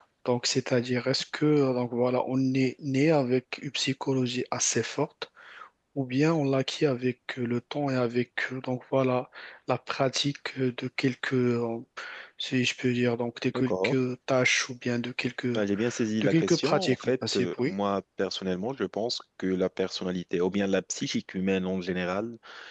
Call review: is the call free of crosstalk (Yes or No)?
No